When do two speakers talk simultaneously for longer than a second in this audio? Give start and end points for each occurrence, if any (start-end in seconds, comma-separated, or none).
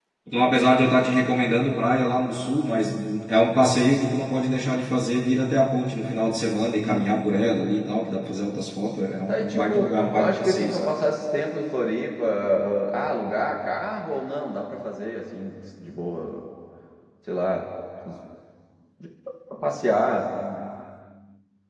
9.3-10.9